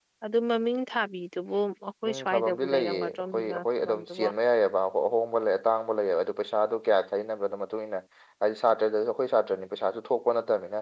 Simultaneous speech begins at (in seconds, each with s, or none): 2.0 s